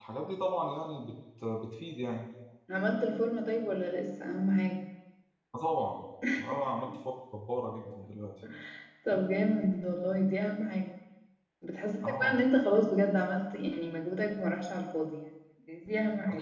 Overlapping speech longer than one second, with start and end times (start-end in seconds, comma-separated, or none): none